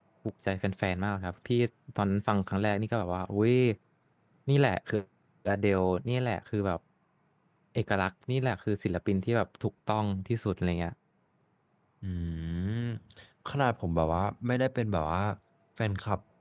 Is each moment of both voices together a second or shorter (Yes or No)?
Yes